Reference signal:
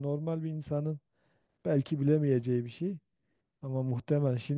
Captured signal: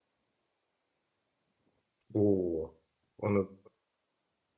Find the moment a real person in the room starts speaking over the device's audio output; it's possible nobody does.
2.1 s

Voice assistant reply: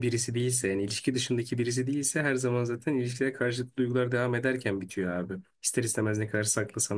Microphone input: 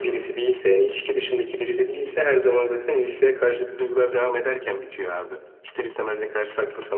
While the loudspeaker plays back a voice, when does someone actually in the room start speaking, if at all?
none

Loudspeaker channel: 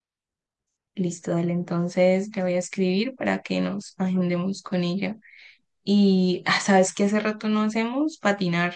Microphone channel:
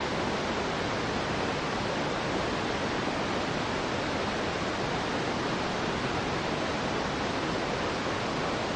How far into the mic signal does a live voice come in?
none

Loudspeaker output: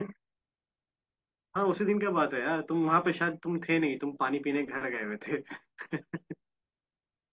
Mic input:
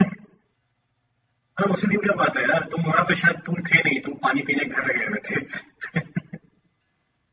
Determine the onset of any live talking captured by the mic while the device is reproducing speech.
none

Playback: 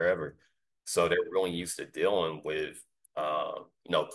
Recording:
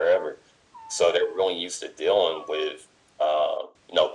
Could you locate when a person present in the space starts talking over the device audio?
none

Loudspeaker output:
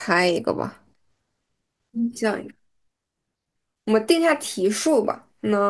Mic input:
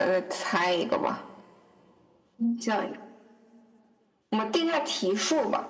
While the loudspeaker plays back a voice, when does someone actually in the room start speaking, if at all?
none

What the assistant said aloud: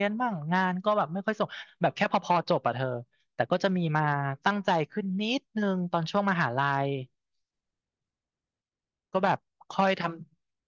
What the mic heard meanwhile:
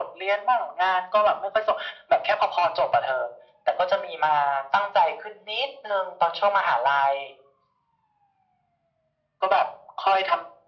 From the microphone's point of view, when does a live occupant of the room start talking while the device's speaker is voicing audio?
none

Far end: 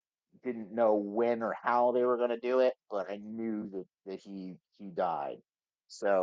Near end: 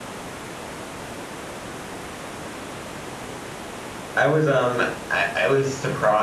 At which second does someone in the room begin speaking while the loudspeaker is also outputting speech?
4.2 s

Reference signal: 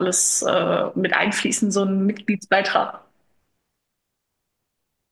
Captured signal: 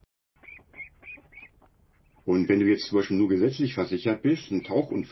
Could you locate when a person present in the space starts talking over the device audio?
2.2 s

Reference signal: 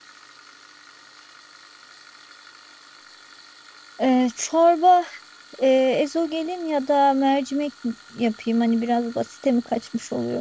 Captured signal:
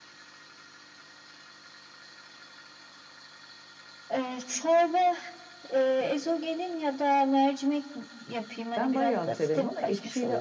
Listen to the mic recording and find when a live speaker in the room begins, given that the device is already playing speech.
8.8 s

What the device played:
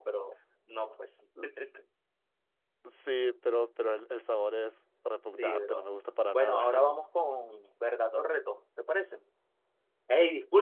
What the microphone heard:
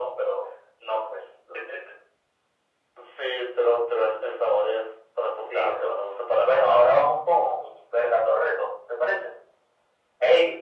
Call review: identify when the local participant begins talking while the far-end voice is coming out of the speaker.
none

